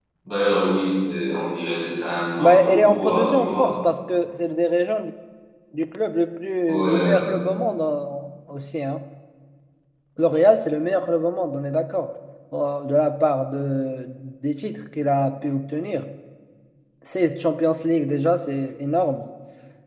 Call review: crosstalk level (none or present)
present